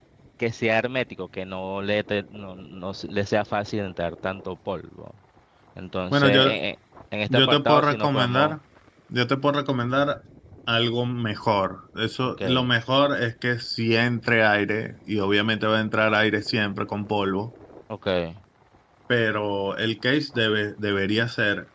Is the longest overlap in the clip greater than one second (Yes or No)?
Yes